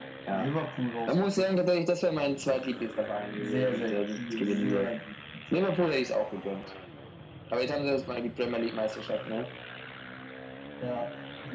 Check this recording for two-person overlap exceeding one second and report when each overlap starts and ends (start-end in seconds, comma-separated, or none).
3.4-4.9